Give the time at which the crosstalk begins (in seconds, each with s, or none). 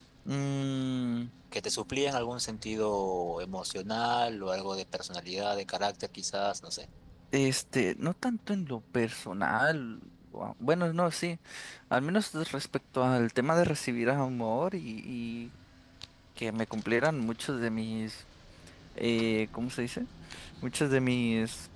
none